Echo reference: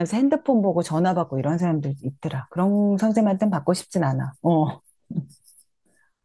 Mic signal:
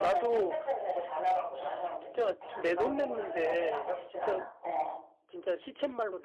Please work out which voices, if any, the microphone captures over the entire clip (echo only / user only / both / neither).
both